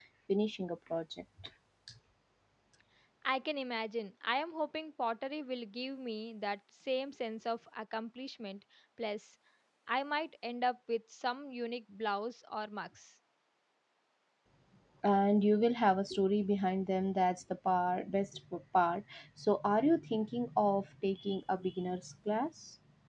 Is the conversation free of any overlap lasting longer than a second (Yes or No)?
Yes